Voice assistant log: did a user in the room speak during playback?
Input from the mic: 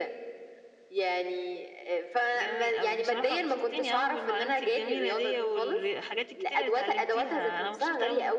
Yes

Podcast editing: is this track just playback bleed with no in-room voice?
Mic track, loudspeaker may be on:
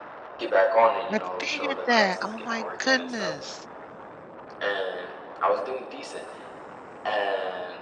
No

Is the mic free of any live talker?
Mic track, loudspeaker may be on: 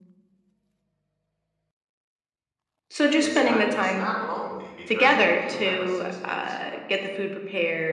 No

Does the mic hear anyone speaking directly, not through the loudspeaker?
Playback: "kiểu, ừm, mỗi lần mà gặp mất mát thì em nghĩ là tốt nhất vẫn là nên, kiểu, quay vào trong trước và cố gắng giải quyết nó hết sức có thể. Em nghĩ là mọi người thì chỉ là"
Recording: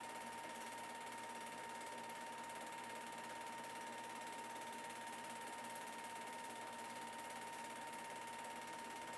No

